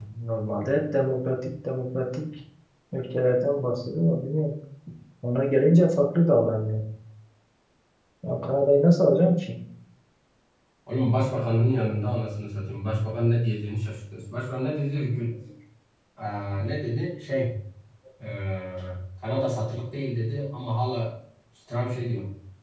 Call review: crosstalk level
none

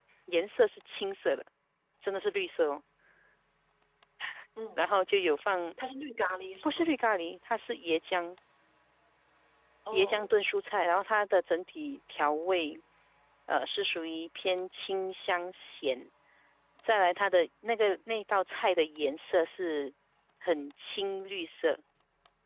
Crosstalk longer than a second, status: none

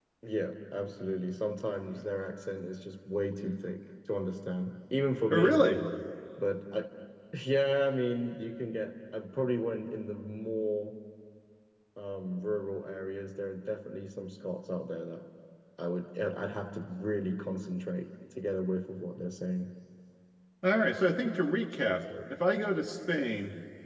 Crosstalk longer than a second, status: none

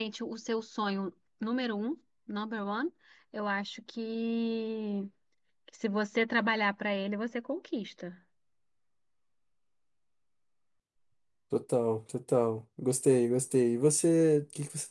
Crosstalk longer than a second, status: none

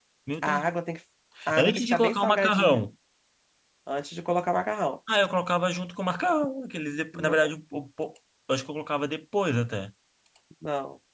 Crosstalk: present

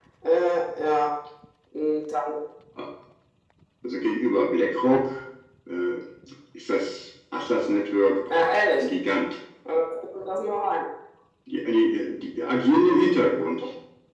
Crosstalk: none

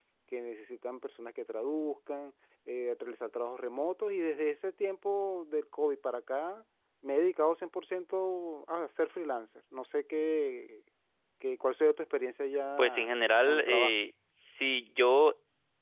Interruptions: present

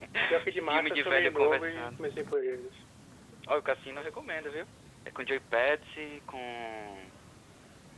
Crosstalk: present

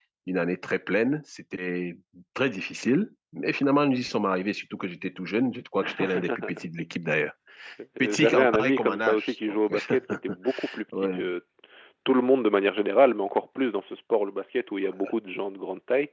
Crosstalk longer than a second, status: present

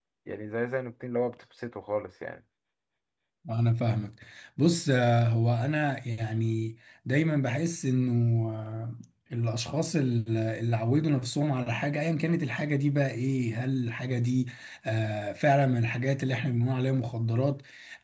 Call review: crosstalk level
none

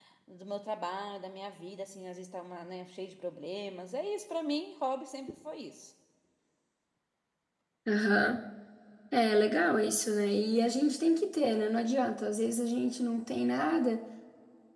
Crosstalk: none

